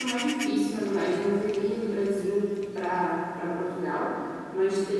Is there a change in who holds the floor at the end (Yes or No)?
No